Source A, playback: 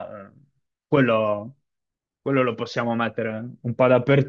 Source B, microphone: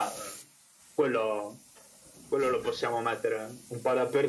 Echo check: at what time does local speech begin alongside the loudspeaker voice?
none

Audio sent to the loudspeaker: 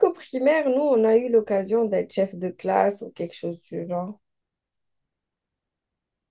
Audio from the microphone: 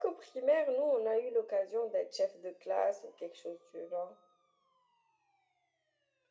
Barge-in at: none

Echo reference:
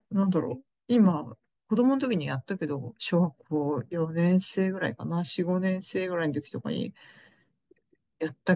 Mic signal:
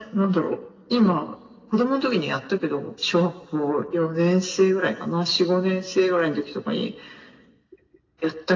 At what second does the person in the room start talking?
none

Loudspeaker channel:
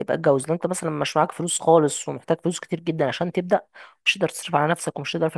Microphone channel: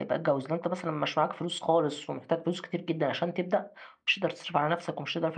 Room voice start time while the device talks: none

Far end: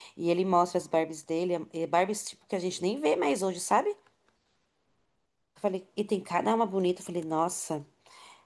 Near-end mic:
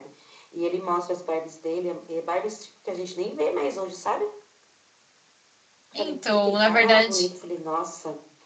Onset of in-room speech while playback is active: 5.9 s

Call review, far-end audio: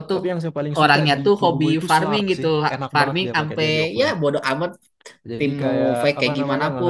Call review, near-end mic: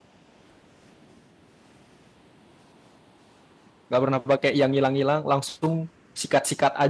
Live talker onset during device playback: 3.9 s

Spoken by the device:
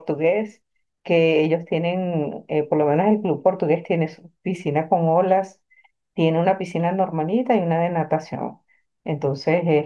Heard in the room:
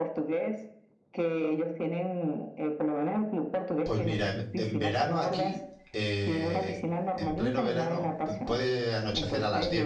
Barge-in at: 3.8 s

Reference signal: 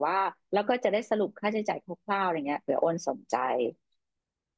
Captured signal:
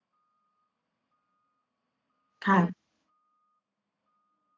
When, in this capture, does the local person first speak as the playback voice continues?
2.4 s

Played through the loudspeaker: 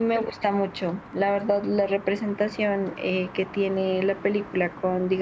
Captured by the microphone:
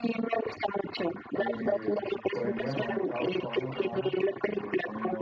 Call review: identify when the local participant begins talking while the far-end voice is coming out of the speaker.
1.4 s

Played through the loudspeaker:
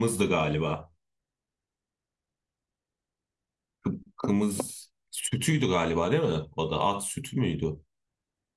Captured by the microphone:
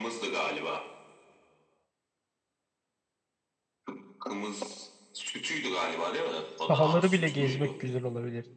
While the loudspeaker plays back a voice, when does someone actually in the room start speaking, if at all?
6.5 s

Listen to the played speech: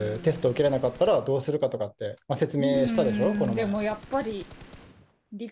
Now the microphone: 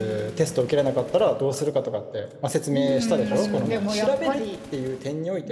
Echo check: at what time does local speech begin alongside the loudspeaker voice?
3.3 s

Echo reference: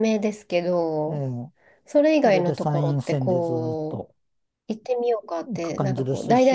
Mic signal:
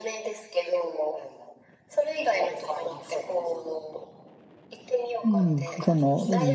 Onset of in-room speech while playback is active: 5.2 s

